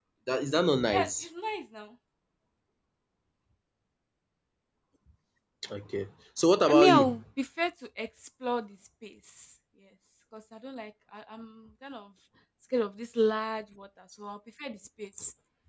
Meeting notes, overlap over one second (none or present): none